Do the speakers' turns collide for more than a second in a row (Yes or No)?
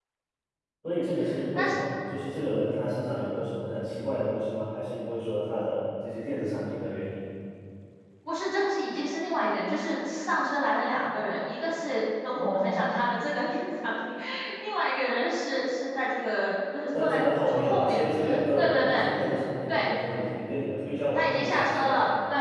Yes